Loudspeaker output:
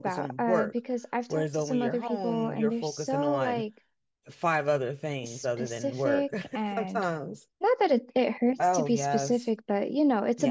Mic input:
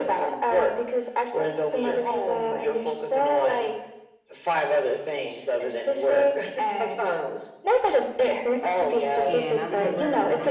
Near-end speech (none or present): present